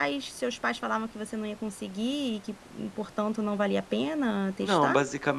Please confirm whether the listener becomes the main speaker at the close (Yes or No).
Yes